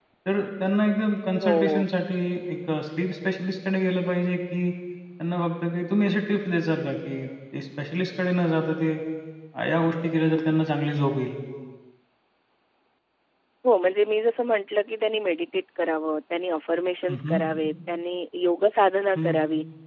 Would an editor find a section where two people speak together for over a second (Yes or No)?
No